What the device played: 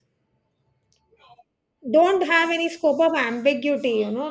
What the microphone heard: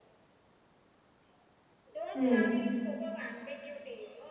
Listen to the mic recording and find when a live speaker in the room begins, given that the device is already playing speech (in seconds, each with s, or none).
2.1 s